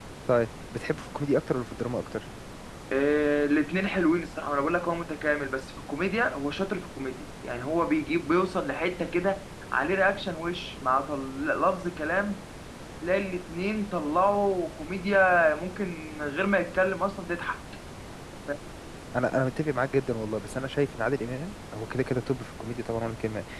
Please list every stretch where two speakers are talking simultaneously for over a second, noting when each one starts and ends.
none

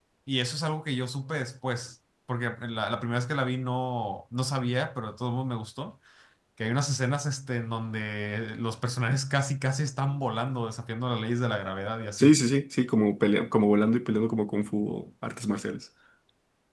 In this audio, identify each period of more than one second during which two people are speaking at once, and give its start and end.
none

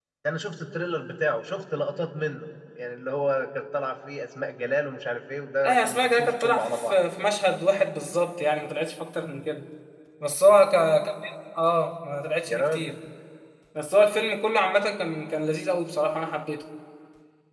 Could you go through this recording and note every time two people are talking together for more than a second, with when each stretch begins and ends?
5.6-7.0

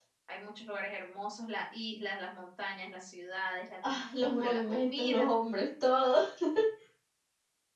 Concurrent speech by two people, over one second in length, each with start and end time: 3.9-5.3

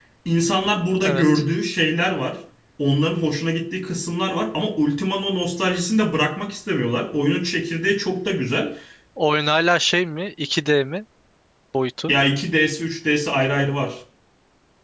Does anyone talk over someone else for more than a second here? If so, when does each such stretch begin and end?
none

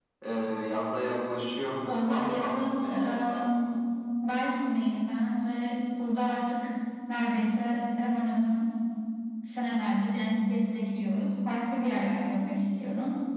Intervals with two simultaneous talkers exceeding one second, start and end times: 1.9-3.5

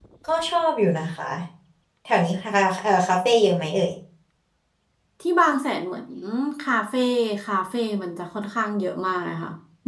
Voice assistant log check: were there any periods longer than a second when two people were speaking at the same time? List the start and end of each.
none

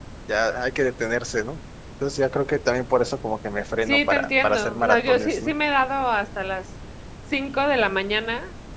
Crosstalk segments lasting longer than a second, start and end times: 3.9-5.5

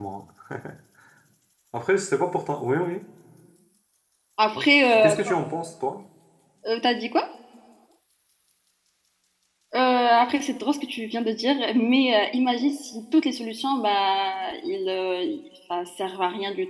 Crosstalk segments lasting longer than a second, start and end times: none

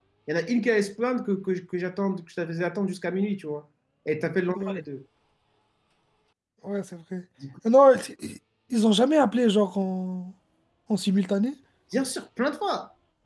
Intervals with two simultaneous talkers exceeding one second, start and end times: none

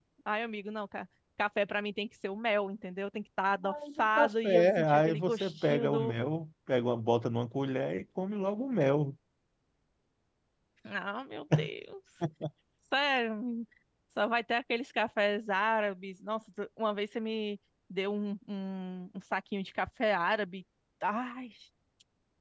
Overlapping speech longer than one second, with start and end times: 3.6-6.1

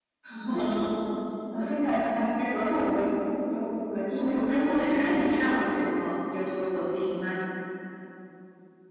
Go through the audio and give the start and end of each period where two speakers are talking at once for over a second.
4.2-5.8

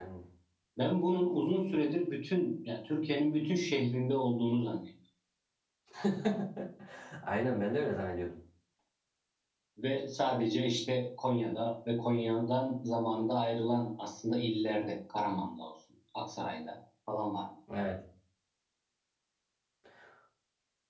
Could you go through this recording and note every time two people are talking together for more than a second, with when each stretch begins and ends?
none

